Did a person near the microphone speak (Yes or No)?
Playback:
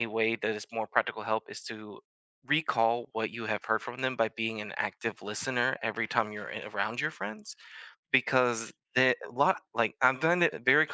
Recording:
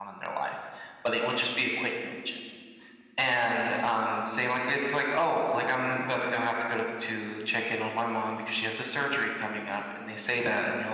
Yes